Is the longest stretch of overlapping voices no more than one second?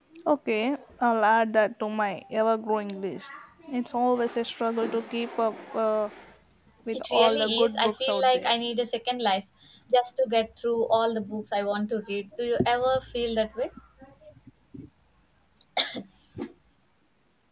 No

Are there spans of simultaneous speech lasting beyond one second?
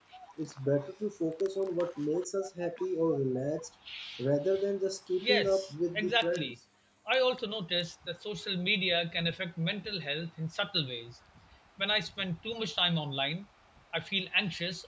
Yes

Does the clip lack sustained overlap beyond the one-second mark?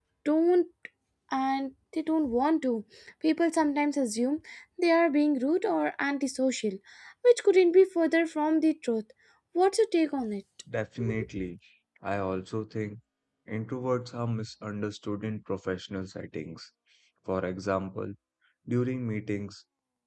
Yes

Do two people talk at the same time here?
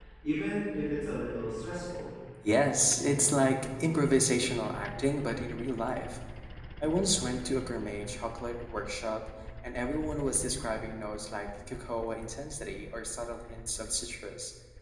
No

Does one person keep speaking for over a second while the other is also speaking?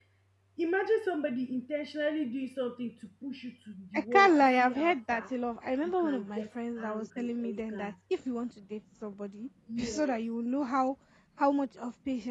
Yes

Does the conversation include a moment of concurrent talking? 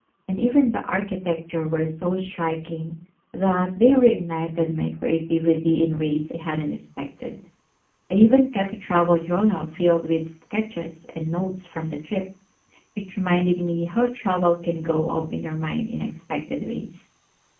No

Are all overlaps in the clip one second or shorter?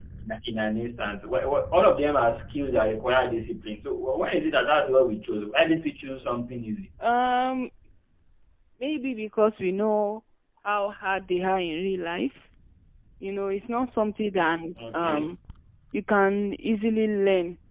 Yes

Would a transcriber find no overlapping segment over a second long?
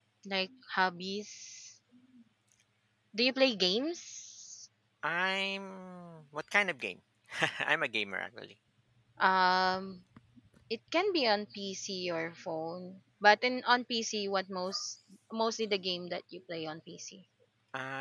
Yes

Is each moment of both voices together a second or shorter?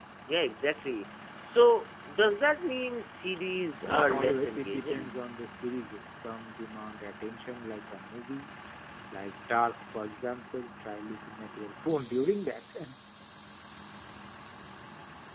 No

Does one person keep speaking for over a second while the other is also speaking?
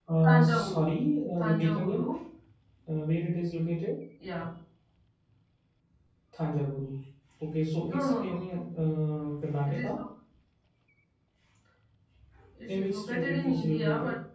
Yes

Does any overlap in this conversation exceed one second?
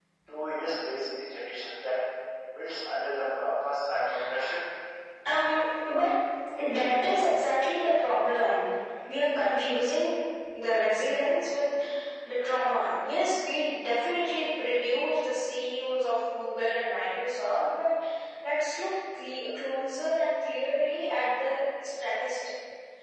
No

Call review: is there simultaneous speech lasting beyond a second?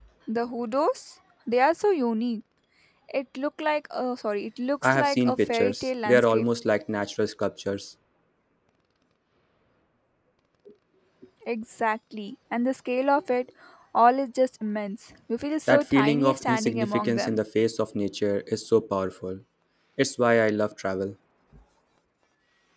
Yes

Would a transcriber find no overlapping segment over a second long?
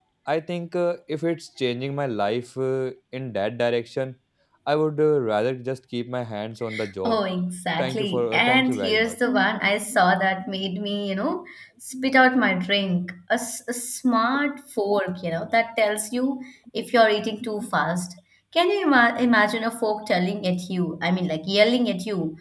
No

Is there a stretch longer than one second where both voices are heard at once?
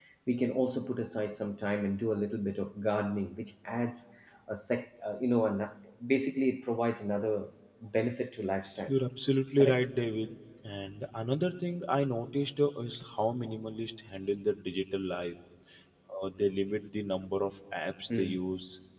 No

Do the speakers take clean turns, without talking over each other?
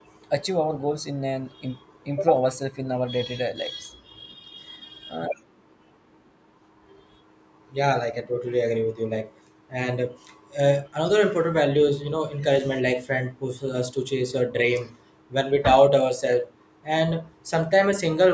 Yes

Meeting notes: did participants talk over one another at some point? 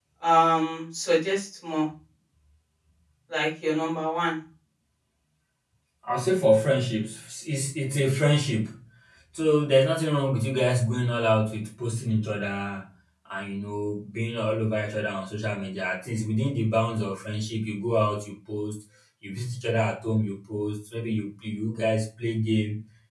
No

